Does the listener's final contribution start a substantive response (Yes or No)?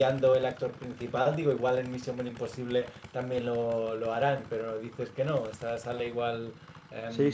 Yes